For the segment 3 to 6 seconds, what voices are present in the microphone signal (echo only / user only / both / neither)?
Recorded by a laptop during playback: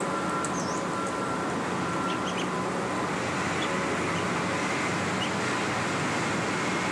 neither